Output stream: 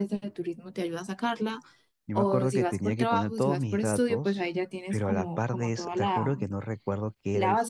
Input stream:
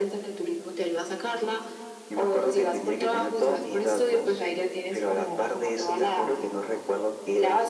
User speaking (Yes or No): No